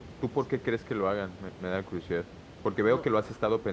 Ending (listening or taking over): listening